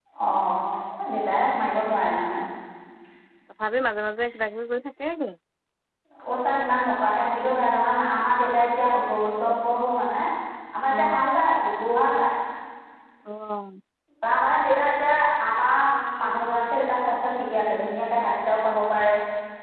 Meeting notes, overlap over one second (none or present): none